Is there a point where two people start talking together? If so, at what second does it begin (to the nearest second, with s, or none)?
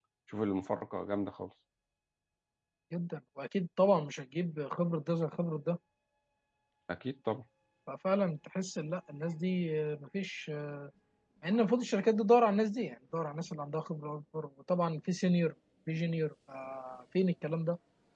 none